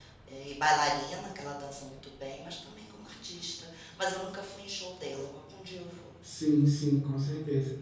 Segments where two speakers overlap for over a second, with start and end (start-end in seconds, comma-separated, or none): none